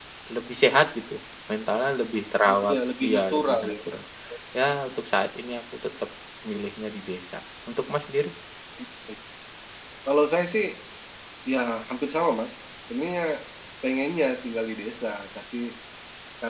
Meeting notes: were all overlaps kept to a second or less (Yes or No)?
No